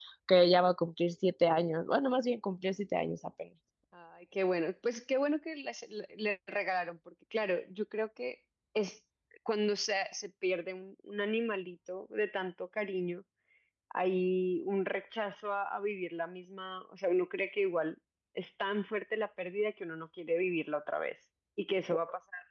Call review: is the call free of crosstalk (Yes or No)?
Yes